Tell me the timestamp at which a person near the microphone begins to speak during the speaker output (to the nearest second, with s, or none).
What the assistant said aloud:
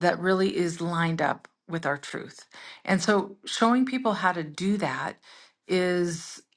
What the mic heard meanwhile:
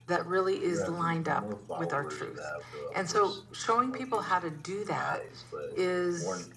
1 s